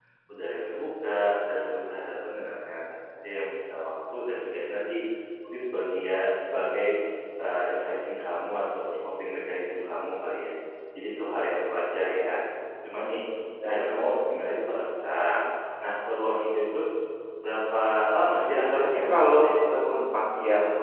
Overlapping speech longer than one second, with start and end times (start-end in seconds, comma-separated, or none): 18.4-19.9